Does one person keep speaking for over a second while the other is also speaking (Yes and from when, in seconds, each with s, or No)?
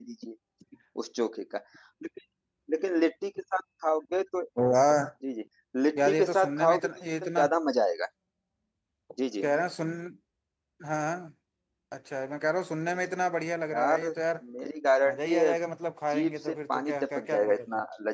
Yes, from 6.0 s